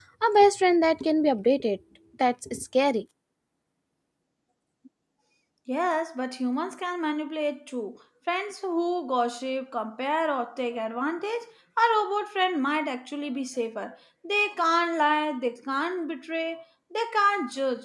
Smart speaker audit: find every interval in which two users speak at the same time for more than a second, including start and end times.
none

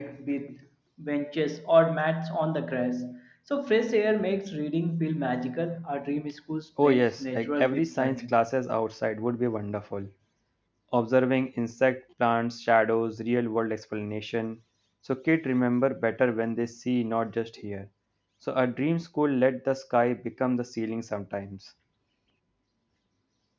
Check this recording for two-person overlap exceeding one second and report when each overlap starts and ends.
6.8-8.4

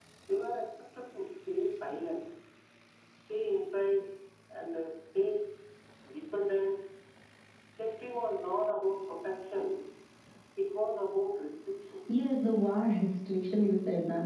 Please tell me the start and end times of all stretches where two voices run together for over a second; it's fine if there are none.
none

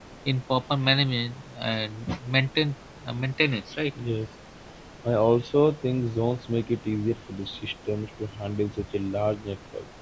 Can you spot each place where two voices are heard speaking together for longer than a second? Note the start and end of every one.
none

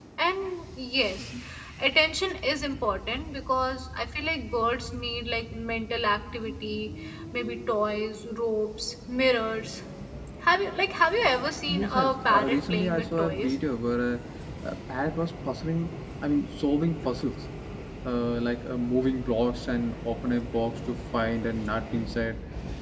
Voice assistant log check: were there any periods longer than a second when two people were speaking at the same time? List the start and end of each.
11.7-13.5

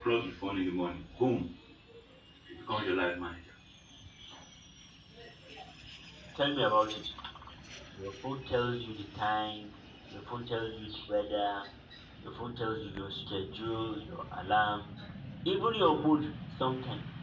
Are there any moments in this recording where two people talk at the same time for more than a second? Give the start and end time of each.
none

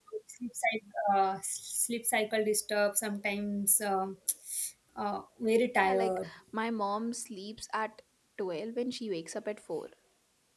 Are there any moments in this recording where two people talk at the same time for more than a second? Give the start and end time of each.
none

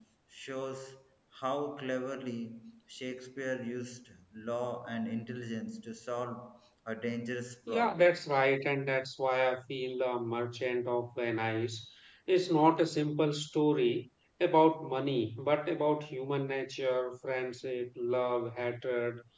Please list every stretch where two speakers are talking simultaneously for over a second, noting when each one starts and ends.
none

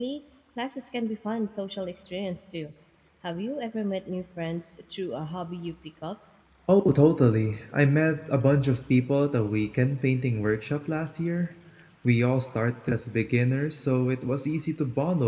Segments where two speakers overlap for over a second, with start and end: none

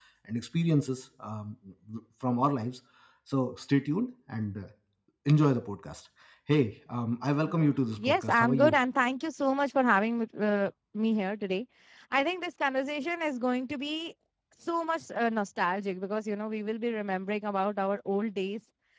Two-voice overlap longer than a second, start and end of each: 7.5-8.8

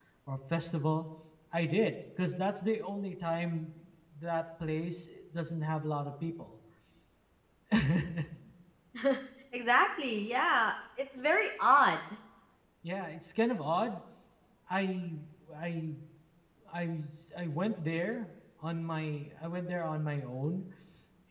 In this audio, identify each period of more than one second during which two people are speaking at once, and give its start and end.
none

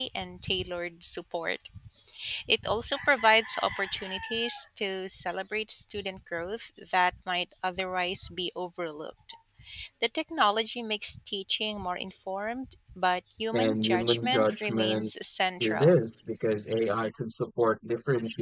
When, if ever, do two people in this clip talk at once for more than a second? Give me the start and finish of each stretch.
13.5-15.1

